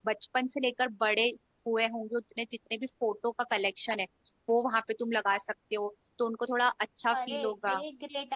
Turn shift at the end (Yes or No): Yes